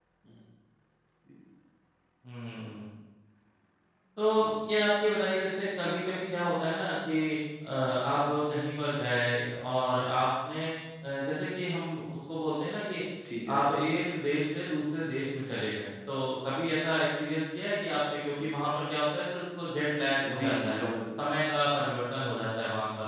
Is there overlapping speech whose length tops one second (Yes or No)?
No